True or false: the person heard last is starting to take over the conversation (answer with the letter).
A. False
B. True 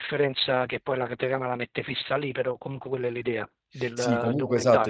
B